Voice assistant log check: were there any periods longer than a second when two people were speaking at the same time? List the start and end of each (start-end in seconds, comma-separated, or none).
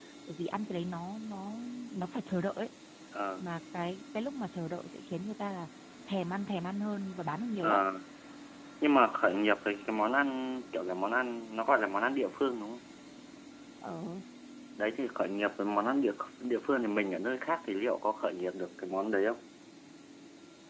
none